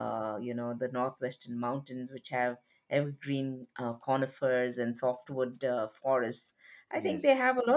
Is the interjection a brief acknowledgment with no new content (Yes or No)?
Yes